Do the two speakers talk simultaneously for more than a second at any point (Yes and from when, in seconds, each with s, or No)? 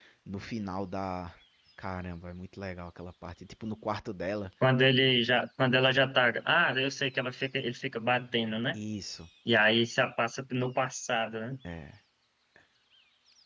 No